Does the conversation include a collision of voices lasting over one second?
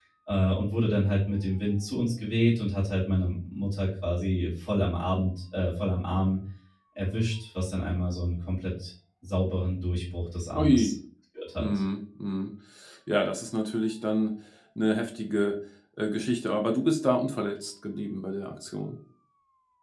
No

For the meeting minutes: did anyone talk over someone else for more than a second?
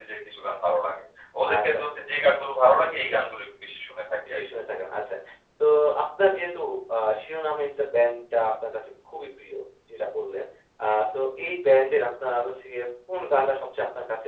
No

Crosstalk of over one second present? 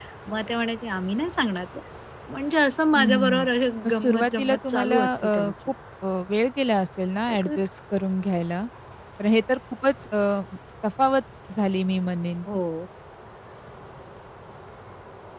Yes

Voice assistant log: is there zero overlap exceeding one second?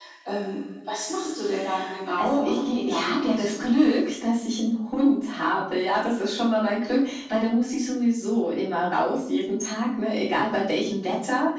No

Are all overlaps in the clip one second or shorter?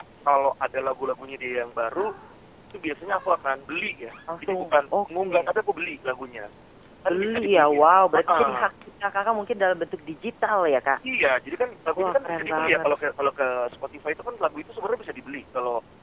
No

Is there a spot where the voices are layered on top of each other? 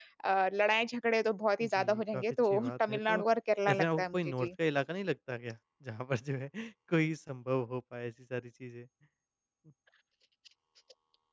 Yes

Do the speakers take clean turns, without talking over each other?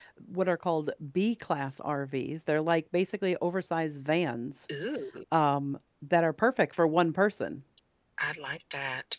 Yes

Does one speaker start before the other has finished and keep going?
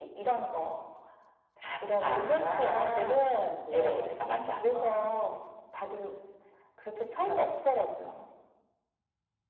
Yes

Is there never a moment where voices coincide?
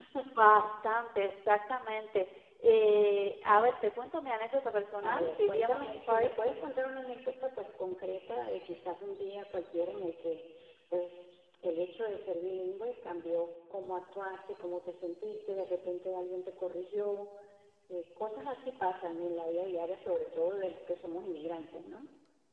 No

